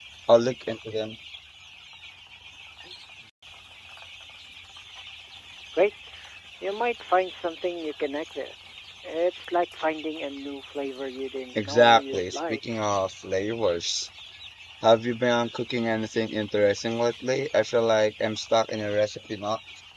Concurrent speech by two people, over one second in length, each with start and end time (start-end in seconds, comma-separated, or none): 11.6-12.8